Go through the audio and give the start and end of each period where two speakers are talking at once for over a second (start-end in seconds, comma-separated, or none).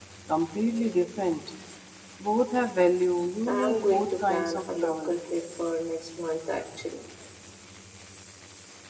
3.5-5.1